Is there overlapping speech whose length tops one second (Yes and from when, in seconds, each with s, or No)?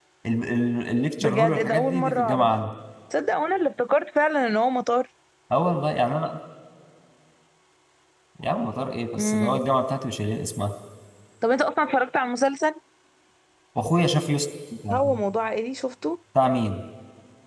Yes, from 1.2 s